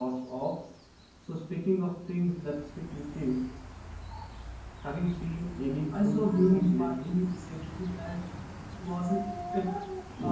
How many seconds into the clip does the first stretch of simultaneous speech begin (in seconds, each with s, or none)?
5.7 s